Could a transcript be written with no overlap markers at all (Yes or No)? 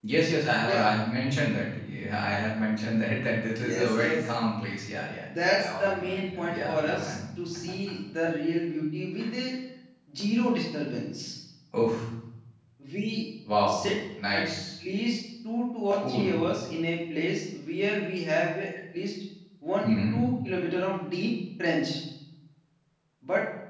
No